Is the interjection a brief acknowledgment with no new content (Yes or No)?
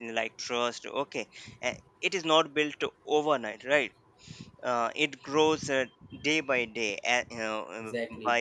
Yes